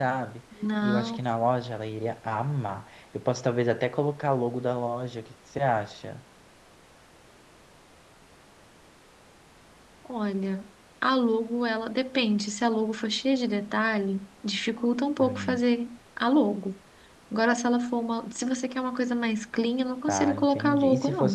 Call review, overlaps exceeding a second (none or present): present